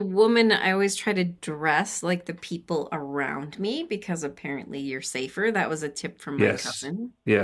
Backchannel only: No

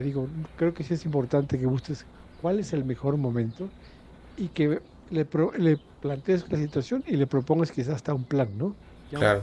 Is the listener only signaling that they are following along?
Yes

